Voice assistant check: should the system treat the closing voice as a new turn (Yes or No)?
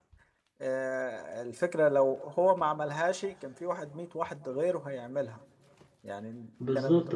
Yes